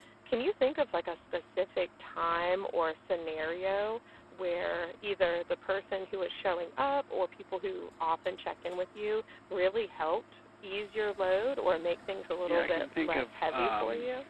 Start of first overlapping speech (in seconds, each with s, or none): 12.5 s